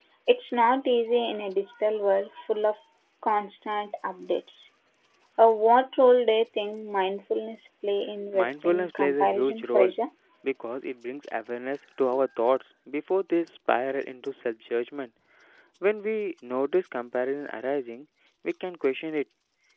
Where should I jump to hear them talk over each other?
8.3 s

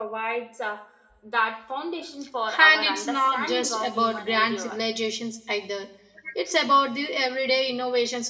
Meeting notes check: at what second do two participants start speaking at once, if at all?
2.5 s

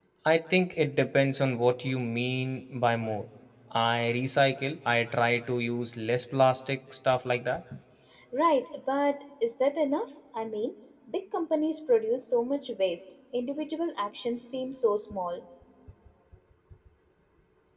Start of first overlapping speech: none

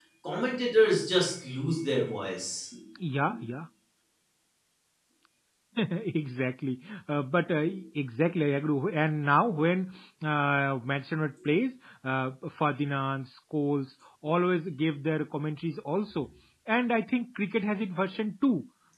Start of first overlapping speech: none

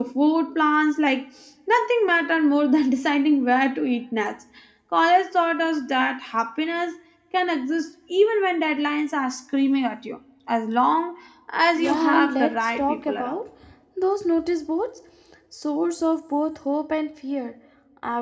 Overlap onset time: 11.7 s

